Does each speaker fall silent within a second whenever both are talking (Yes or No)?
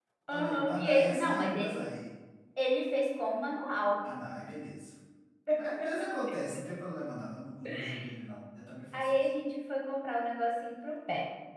No